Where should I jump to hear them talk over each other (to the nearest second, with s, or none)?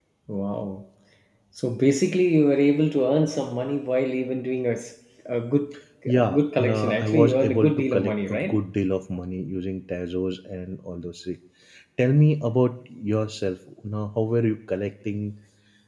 6 s